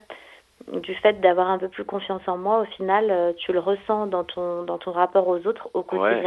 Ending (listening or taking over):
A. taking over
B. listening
A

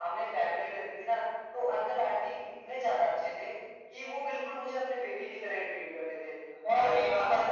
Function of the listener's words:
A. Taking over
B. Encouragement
B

